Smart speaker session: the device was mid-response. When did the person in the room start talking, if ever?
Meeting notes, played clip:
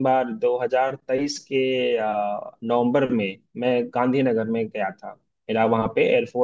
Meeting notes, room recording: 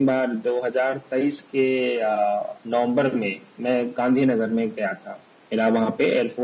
none

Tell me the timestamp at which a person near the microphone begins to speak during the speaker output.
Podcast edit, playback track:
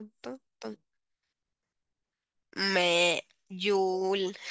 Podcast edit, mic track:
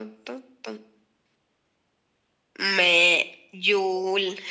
none

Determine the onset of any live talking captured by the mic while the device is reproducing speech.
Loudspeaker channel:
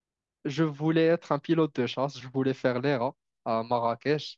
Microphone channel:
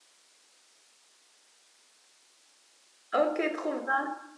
3 s

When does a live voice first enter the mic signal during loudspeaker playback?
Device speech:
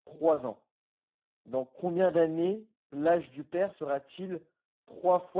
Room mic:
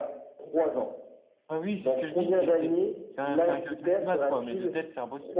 1 s

